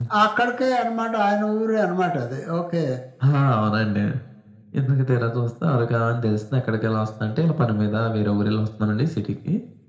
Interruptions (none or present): none